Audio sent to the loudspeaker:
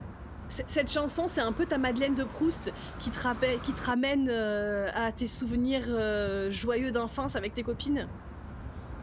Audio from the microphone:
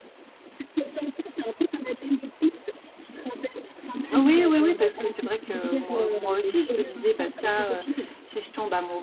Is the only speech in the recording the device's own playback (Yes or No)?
No